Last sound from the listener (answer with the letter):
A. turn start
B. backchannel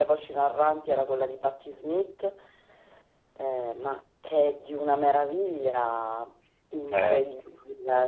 B